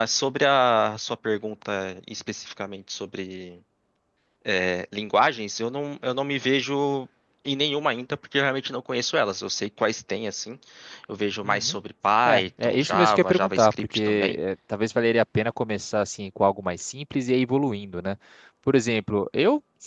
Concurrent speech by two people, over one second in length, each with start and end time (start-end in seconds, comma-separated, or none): 12.2-14.4